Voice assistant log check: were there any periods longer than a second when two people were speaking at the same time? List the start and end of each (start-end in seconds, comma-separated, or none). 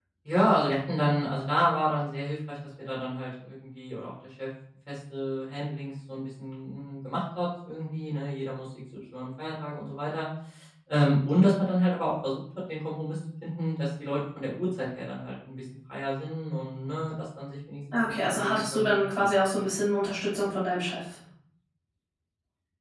18.1-19.7